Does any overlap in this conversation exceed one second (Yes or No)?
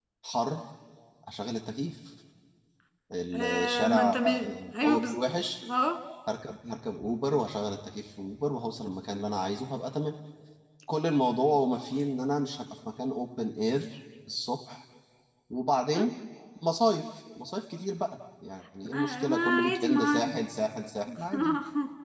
Yes